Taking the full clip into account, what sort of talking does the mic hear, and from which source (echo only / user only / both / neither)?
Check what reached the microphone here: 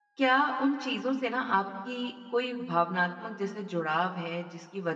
user only